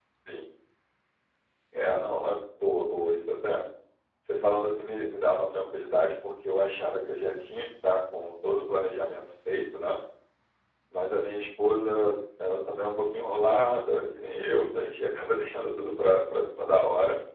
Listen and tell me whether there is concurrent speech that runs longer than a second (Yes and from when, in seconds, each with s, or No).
No